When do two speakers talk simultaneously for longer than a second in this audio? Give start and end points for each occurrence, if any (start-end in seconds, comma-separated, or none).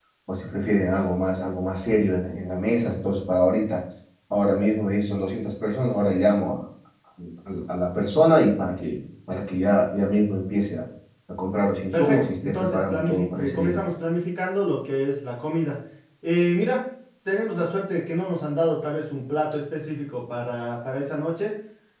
11.9-13.8